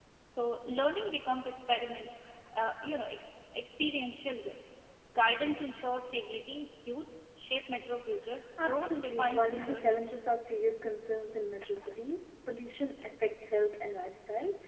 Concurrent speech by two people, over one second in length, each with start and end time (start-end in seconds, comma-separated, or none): 8.6-10.0